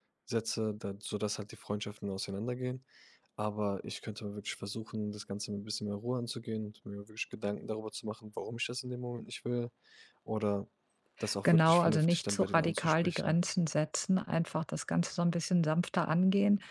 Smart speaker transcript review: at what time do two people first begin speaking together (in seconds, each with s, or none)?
11.4 s